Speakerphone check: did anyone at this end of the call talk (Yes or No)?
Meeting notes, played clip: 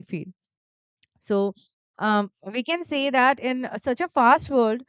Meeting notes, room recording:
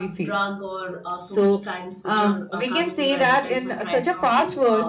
Yes